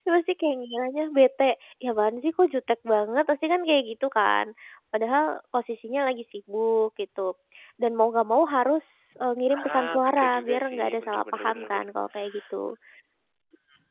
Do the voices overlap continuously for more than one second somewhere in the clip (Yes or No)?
Yes